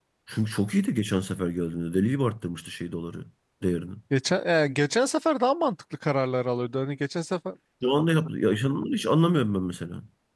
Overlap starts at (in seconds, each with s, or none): none